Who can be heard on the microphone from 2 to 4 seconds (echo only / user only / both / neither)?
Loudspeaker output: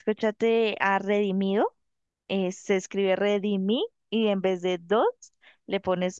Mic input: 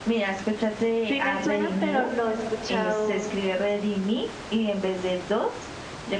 both